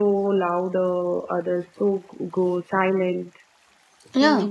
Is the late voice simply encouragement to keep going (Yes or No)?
No